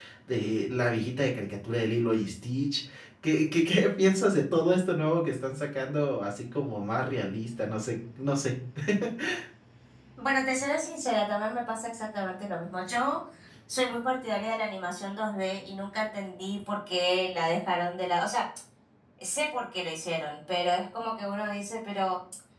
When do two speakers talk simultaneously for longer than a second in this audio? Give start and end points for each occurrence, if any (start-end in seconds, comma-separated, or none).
none